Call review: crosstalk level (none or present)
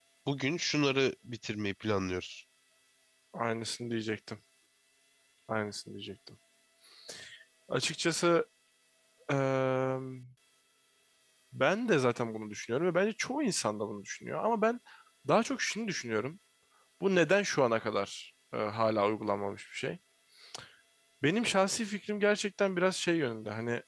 none